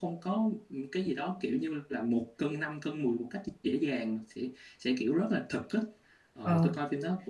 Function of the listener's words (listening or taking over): listening